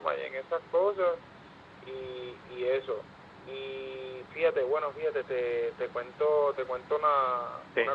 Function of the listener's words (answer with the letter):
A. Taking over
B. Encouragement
B